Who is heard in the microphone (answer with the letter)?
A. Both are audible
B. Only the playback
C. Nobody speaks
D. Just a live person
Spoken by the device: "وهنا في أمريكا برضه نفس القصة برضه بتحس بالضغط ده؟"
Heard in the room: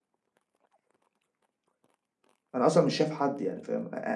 D